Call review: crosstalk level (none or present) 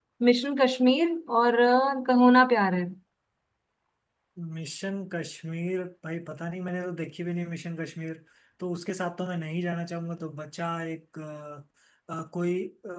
none